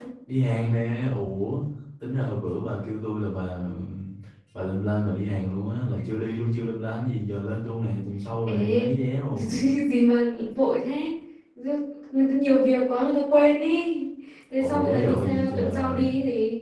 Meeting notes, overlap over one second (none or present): present